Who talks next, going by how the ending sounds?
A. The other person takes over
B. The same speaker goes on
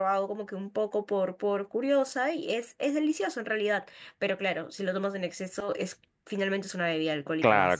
A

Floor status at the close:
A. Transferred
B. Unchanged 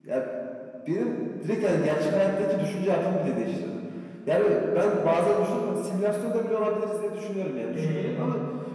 B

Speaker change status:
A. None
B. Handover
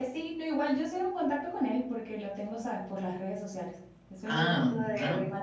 A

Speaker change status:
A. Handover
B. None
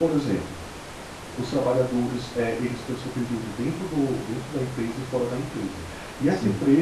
B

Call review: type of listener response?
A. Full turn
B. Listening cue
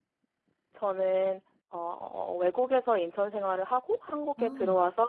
B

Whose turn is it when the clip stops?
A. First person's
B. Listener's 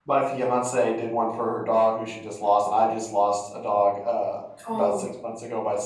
A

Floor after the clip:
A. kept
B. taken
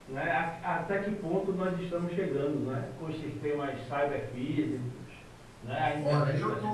B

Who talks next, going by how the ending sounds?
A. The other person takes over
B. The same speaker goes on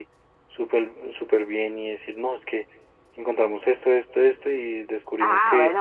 A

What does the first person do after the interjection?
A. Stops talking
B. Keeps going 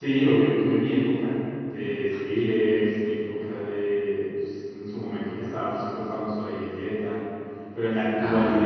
B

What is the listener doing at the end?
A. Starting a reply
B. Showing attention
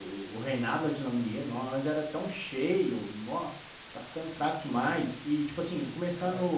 B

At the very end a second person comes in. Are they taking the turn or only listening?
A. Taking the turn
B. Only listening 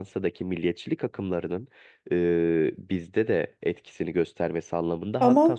B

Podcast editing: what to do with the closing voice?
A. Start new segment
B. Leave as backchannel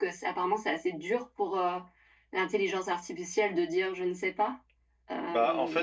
A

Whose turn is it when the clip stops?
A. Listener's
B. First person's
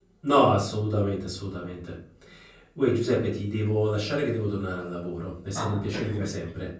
A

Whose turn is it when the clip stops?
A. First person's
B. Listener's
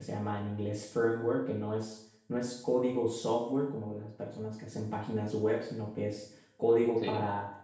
A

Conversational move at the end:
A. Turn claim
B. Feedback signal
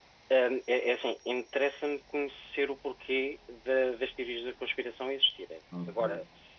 B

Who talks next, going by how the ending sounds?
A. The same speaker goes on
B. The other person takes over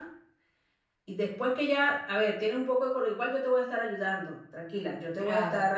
A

